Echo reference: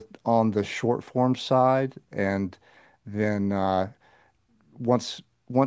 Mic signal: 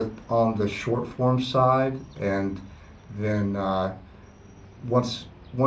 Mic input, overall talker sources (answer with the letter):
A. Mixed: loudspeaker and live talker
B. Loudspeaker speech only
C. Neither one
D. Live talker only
B